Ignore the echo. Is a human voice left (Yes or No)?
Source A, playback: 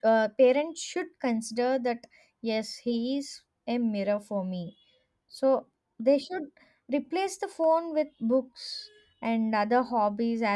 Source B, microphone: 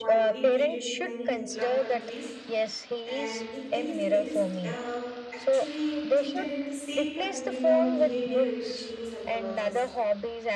Yes